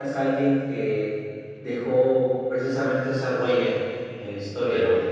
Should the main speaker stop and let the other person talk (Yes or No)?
Yes